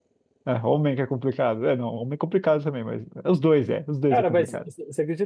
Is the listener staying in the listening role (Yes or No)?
No